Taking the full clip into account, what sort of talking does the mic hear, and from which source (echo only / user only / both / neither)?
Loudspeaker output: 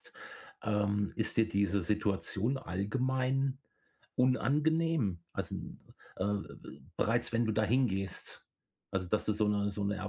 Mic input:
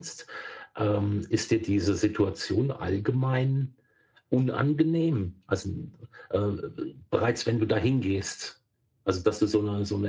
echo only